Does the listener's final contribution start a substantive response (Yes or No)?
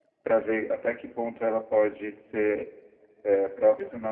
No